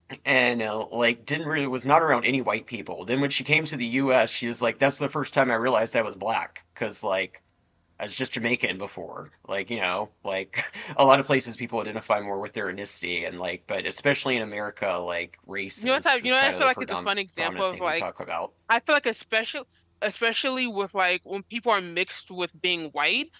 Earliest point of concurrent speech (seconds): 15.8 s

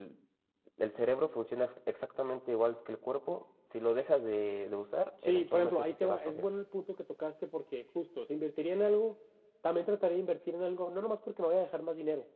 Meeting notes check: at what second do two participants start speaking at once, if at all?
5.2 s

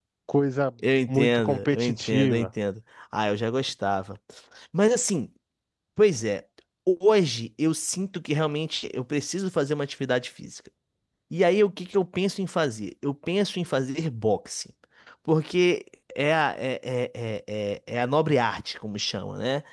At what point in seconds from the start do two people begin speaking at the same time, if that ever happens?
1.1 s

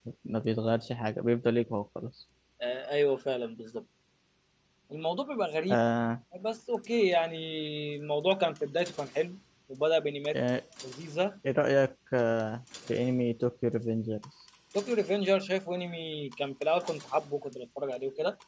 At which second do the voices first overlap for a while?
none

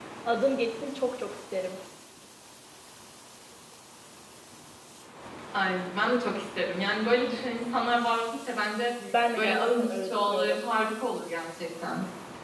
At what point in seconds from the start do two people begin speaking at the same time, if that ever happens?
9.4 s

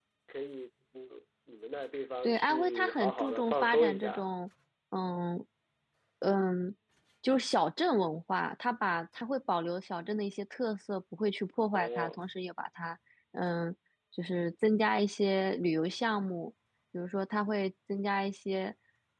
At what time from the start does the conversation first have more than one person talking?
2.2 s

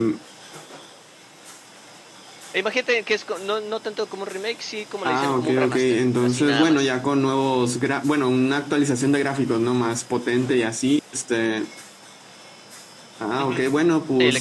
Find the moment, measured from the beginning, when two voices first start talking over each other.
5.0 s

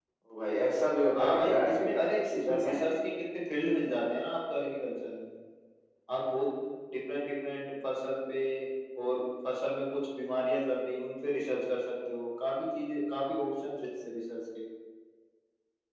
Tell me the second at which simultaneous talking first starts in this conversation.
1.1 s

